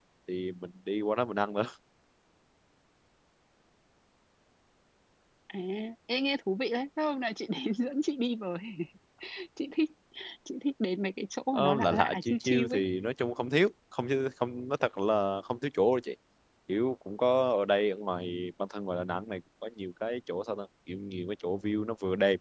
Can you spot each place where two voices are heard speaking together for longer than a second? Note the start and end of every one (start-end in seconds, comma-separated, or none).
11.5-12.8